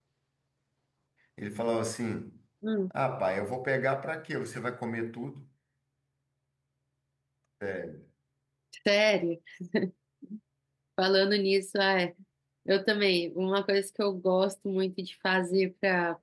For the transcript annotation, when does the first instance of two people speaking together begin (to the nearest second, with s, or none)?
none